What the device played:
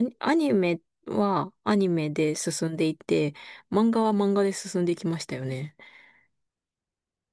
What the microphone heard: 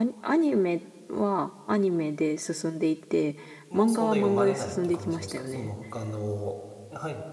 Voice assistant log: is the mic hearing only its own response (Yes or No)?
No